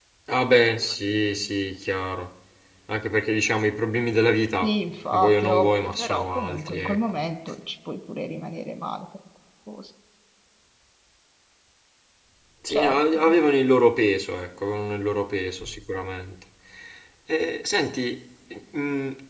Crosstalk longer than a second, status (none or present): present